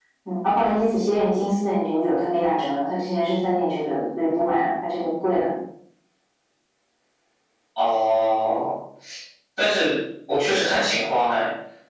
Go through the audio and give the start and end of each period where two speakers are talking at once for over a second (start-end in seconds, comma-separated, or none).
none